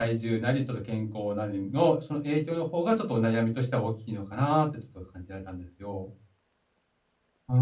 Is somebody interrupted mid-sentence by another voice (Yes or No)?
No